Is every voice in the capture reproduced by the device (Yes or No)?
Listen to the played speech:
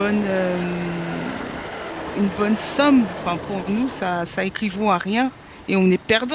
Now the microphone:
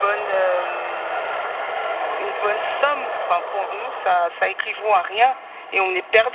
Yes